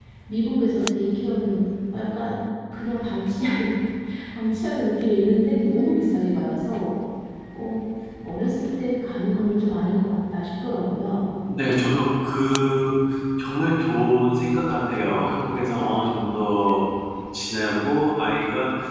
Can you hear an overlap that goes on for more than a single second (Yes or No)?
No